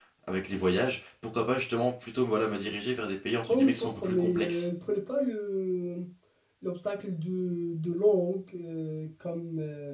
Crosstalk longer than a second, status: present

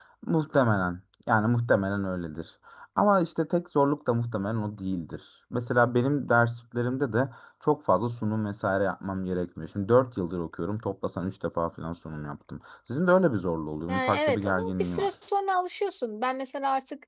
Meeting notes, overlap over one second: present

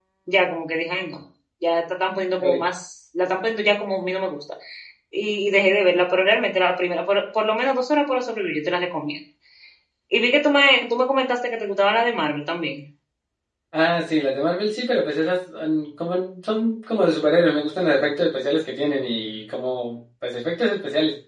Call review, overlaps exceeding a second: none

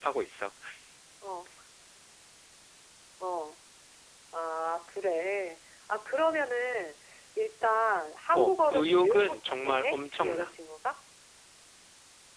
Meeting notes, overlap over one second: present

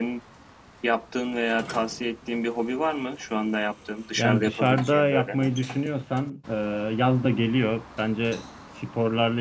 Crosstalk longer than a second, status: present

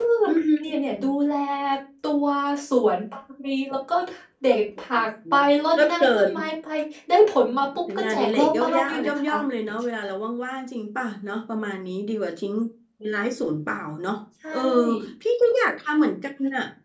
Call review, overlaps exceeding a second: present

